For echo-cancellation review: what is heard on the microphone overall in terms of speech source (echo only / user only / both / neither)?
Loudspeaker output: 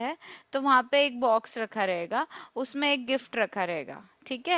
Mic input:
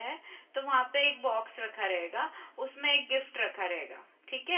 echo only